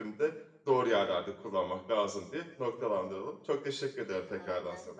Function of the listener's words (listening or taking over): taking over